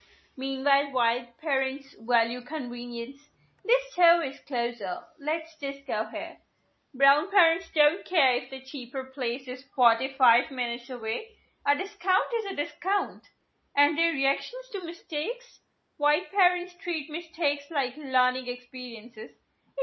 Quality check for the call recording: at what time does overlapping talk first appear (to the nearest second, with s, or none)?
none